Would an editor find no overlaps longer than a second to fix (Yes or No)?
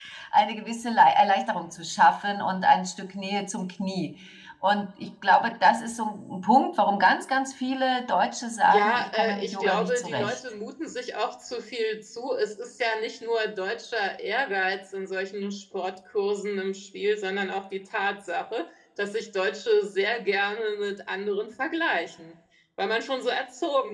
No